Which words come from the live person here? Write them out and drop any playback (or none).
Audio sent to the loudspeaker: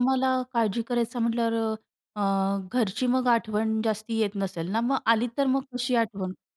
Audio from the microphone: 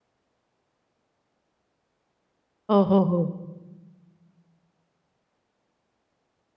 हो, हो, हो.